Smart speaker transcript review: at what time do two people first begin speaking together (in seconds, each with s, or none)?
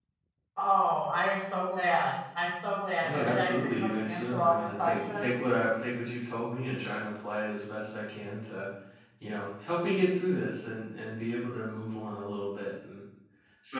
3.0 s